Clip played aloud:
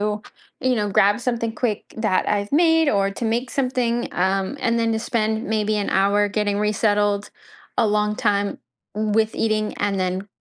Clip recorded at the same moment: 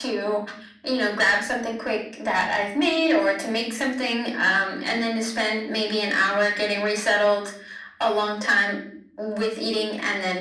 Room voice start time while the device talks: none

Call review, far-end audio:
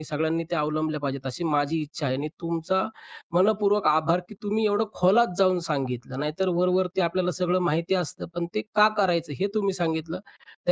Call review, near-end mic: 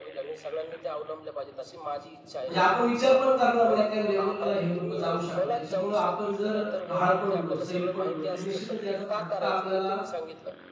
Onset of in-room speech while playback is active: 2.4 s

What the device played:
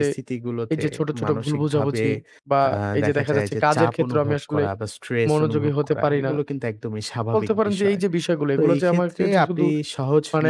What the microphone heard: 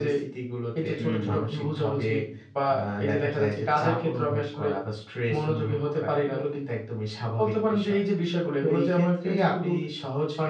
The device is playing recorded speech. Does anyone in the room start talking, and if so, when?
1.0 s

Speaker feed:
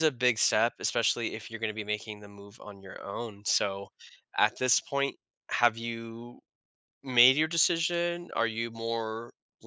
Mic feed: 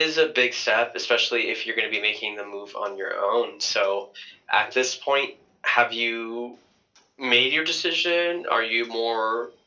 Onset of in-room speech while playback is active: none

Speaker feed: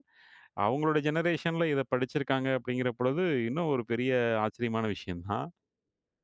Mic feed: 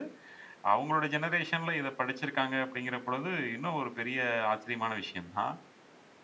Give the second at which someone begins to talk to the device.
none

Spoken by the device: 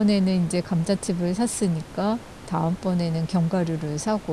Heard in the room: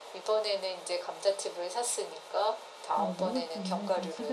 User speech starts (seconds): 2.9 s

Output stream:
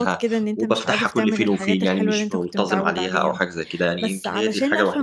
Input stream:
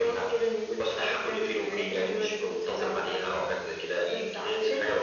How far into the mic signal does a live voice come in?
none

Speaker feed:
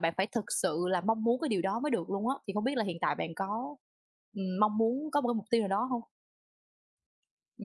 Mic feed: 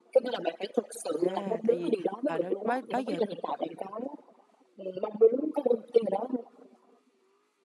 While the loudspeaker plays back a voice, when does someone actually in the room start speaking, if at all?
1.2 s

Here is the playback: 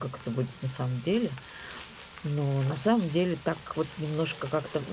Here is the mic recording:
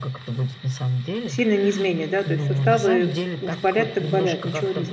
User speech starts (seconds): 1.2 s

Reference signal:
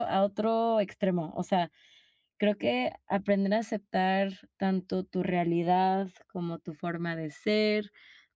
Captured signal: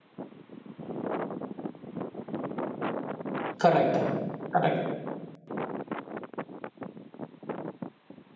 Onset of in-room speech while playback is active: 3.6 s

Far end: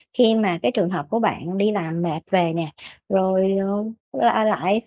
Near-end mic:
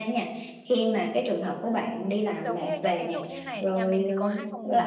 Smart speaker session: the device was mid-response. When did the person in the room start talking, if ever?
1.7 s

